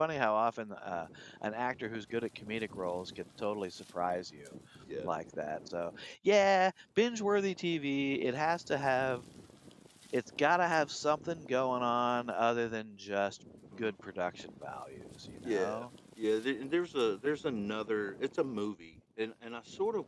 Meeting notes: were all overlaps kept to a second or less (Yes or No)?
Yes